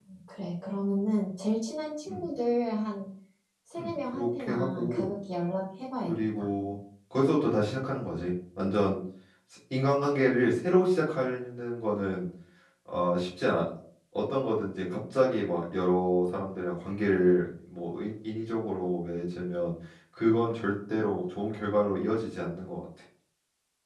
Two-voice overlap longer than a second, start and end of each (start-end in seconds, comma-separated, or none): 3.8-5.1